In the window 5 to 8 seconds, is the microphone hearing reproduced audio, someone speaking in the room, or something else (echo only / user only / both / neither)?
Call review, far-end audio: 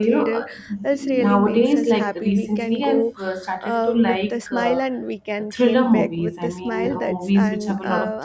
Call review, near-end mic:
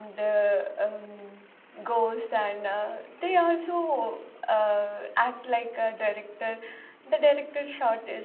user only